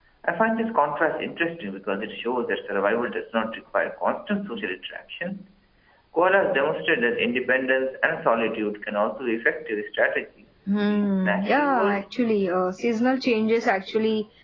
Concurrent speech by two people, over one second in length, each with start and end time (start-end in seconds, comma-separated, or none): 10.7-12.0